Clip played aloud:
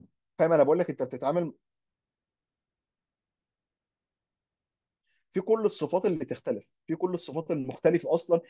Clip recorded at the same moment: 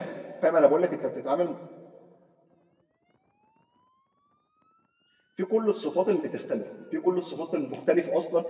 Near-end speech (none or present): none